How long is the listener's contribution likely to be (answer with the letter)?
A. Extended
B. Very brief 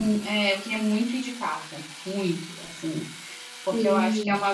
B